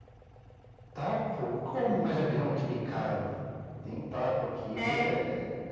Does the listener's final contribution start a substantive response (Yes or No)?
No